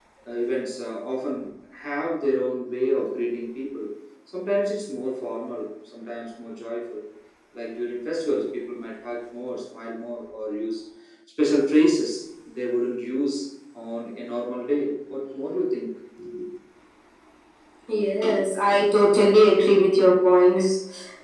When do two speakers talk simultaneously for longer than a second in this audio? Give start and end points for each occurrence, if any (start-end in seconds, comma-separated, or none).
none